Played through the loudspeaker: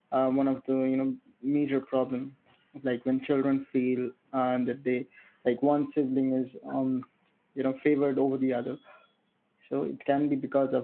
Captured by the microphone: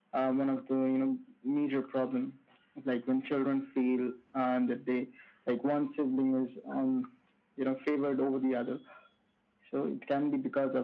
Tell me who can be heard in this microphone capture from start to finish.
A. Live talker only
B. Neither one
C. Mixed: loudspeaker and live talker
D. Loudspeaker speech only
D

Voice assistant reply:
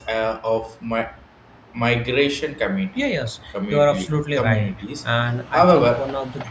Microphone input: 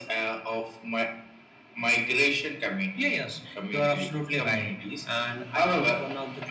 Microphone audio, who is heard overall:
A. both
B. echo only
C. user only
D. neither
B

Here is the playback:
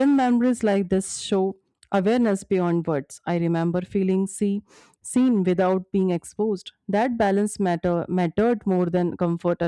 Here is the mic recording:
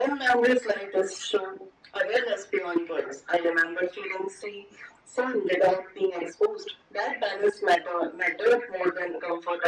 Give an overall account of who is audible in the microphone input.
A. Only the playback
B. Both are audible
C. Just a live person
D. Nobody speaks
A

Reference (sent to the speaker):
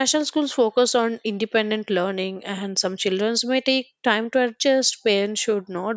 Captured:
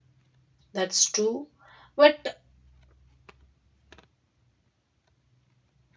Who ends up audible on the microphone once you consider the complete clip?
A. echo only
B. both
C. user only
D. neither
C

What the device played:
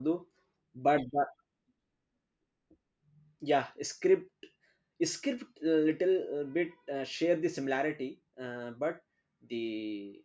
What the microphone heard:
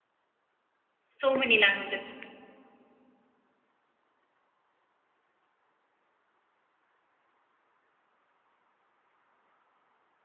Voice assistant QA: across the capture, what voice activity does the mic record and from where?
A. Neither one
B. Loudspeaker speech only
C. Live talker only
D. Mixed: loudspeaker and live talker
C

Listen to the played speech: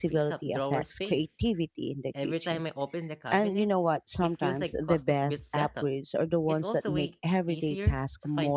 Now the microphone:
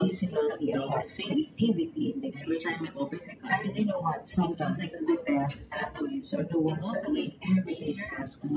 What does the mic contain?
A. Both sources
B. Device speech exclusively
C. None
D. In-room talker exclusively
B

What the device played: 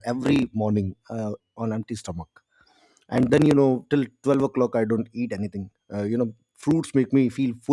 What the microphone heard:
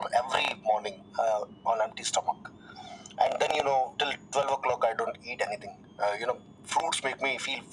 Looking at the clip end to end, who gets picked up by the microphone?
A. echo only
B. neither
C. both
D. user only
A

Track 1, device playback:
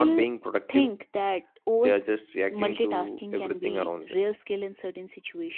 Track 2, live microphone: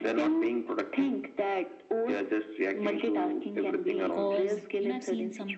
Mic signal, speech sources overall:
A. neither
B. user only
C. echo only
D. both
D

